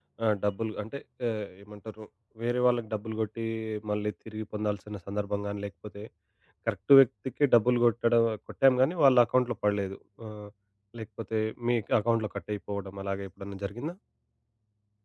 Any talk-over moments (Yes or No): No